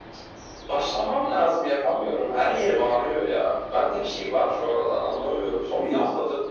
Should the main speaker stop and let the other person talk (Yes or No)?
No